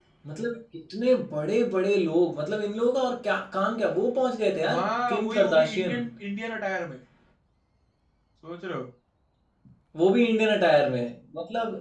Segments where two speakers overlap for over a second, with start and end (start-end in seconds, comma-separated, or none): 4.7-6.0